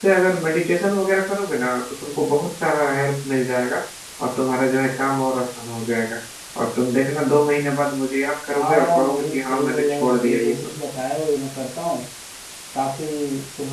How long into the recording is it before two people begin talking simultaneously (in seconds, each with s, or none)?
8.5 s